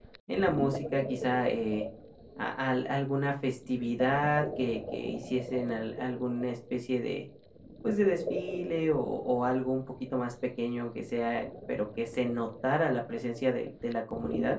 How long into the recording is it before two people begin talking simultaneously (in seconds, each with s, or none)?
none